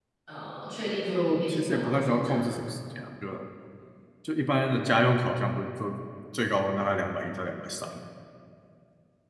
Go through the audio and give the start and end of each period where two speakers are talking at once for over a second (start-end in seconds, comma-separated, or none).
1.1-2.5